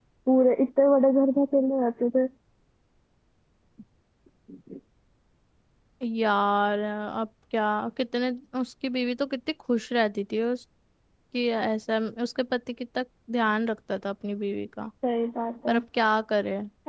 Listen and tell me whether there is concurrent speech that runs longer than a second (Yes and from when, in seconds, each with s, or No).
No